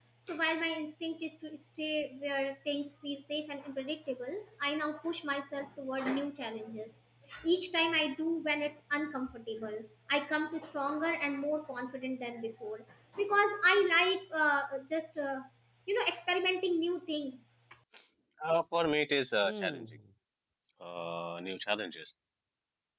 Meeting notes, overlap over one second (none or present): none